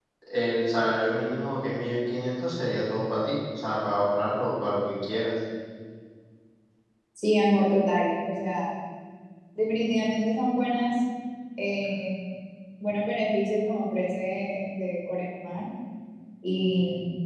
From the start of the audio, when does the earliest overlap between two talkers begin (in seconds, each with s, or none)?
none